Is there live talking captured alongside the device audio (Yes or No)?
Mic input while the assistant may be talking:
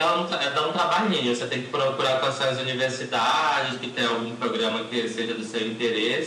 No